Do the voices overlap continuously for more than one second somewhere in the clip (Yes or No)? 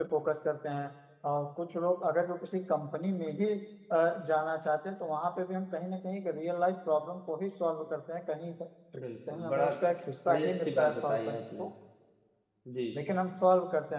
Yes